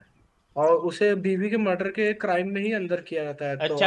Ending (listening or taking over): taking over